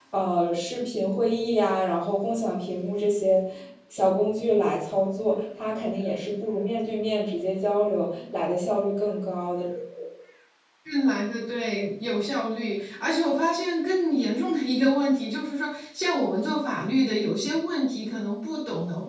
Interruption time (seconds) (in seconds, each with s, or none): none